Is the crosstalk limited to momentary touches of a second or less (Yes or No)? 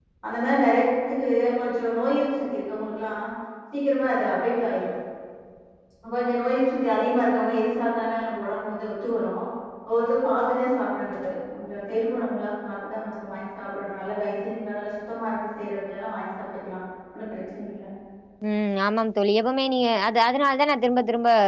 Yes